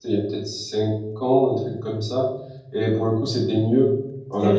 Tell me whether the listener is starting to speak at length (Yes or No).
No